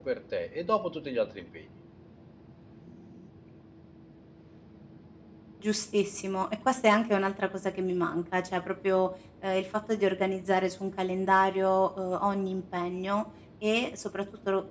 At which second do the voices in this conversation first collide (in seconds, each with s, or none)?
none